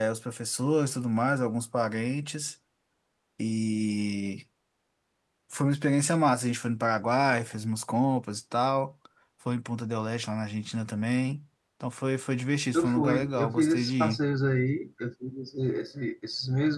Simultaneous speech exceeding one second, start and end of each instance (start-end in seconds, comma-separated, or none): 12.7-14.2